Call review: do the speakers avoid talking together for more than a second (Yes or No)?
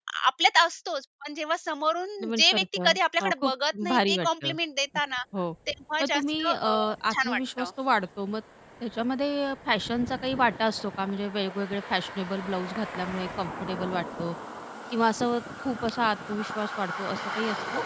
No